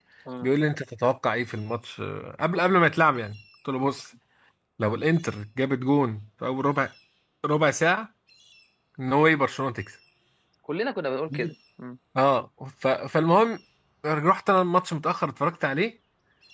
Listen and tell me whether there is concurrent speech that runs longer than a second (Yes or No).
No